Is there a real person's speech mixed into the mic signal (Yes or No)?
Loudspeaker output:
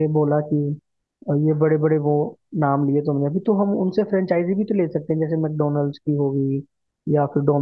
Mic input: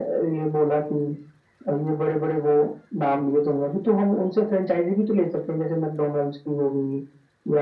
No